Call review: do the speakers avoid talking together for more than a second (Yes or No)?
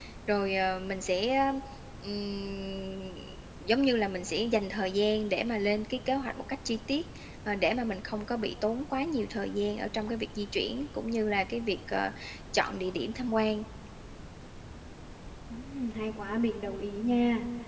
Yes